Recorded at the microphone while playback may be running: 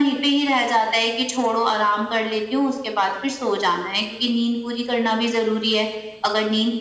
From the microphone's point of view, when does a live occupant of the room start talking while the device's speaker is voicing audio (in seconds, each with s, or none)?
none